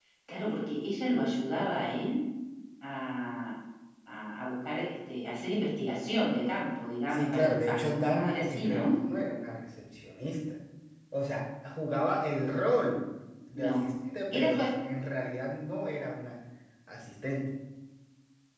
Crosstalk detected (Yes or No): Yes